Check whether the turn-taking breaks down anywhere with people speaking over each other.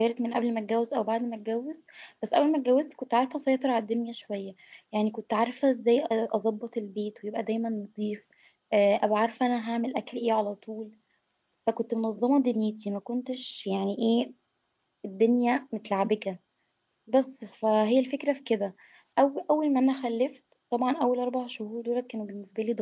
No

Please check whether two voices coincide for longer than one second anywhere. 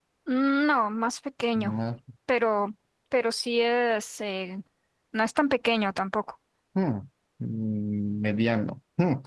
No

